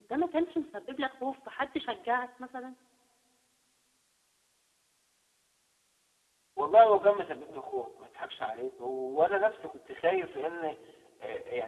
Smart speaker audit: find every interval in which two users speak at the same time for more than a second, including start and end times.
none

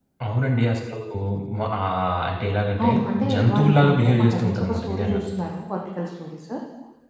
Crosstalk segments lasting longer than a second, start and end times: 3.3-5.2

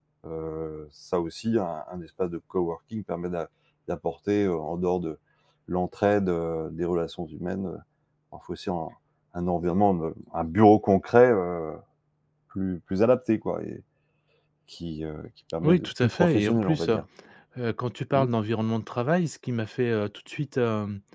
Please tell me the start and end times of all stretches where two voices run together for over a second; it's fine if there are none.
15.6-17.0

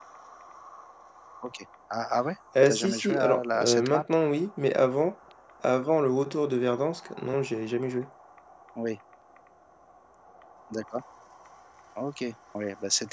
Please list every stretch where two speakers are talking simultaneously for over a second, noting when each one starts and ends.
2.7-4.0

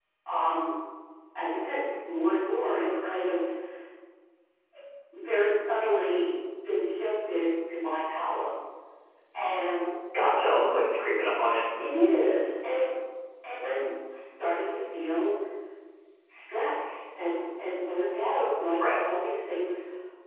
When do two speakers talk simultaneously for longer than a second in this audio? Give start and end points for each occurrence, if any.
none

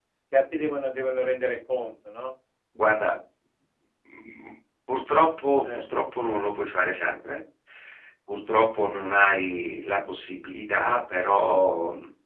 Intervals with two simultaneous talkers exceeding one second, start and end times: none

